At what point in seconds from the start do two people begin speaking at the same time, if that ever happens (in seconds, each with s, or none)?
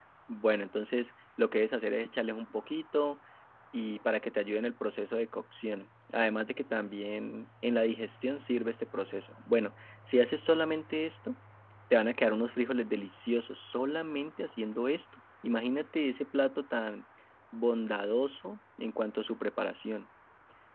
none